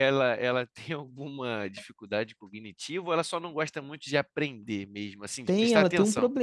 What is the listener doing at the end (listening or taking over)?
taking over